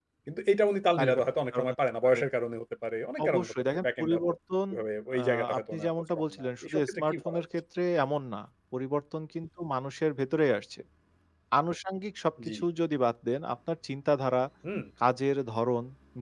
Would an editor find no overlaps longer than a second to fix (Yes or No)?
No